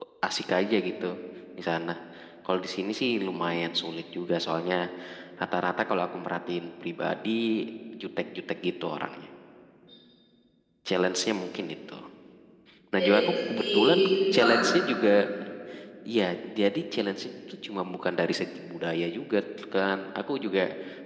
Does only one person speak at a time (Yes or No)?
No